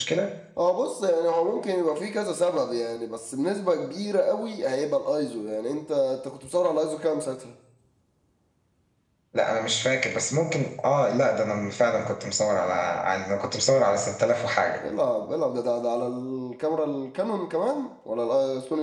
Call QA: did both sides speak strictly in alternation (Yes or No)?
Yes